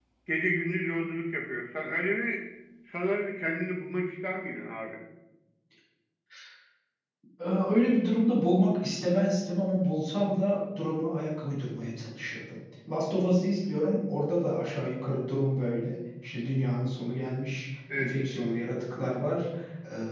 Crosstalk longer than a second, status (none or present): none